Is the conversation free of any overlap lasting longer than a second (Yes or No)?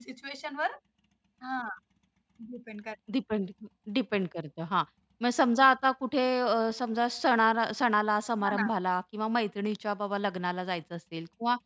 Yes